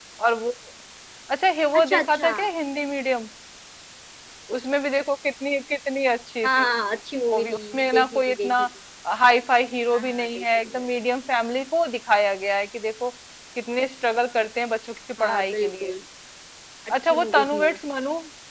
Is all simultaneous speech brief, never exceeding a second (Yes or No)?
No